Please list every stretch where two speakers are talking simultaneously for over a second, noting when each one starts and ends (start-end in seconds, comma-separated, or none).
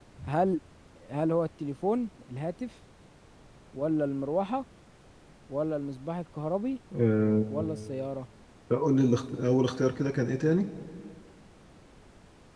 none